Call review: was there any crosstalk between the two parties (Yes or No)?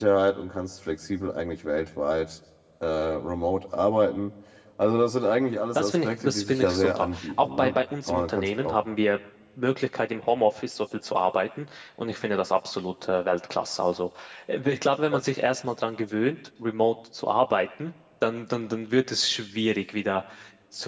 Yes